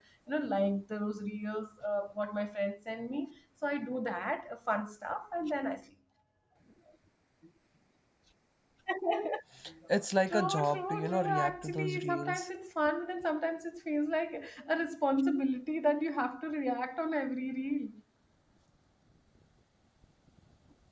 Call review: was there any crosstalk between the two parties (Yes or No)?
Yes